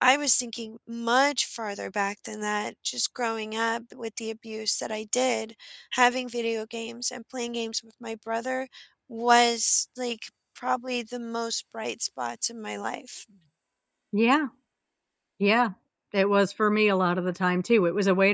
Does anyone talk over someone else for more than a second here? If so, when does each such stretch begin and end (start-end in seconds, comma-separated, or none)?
none